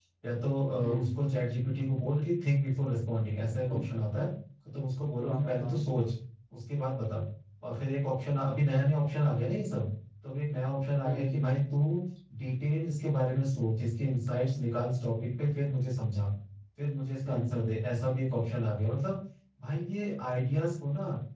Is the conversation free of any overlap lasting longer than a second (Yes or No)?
Yes